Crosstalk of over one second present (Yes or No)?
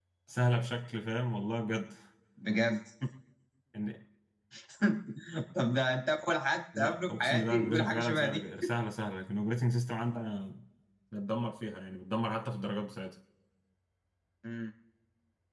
Yes